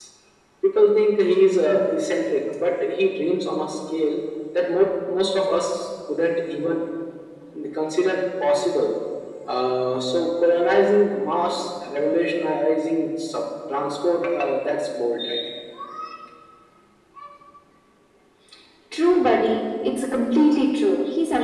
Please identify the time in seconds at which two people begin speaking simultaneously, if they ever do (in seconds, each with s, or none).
none